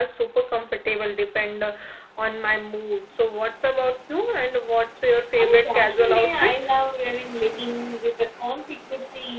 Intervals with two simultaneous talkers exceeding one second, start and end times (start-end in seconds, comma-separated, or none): 5.4-6.7